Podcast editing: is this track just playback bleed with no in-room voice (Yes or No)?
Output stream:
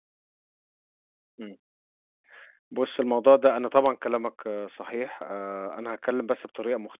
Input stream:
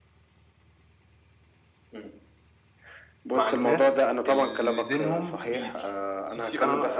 No